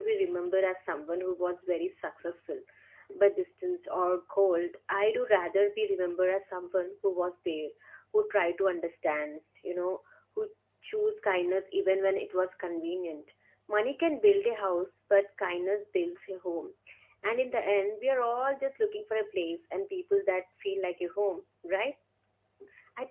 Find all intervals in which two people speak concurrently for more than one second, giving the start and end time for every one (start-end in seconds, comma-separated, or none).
none